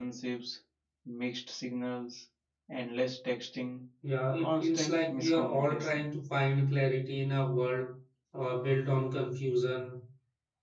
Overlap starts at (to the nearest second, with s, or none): 4 s